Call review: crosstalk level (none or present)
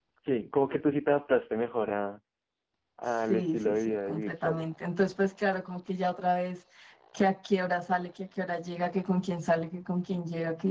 present